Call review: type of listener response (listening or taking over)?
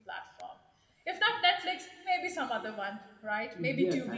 taking over